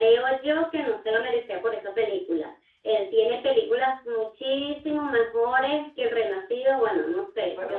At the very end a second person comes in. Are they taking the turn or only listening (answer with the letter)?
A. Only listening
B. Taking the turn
B